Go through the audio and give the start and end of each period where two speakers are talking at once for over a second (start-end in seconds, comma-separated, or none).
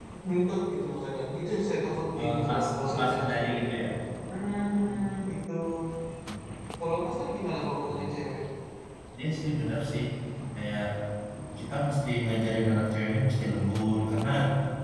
2.2-3.5